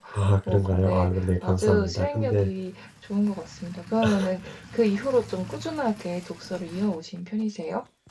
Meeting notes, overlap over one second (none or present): present